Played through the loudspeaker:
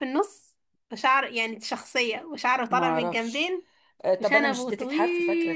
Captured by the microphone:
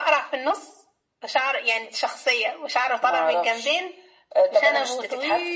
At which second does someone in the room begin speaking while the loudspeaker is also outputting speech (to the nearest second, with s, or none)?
none